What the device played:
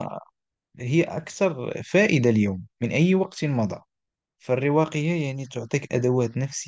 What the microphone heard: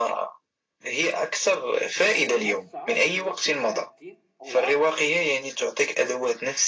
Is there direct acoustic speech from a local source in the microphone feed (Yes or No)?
Yes